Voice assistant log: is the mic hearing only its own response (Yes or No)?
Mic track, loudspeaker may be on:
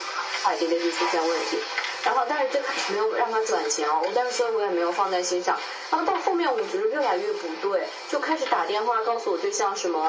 Yes